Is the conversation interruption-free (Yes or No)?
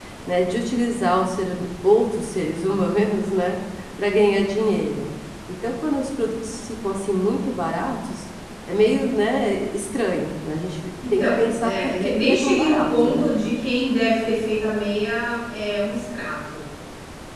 No